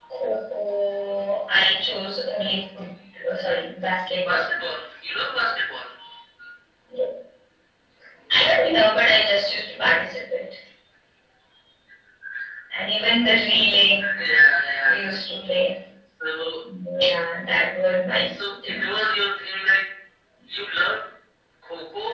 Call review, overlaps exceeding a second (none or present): none